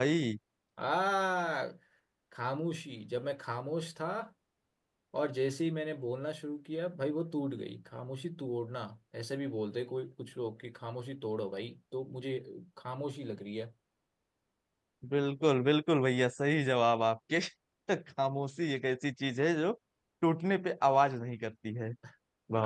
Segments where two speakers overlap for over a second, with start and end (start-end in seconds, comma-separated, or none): none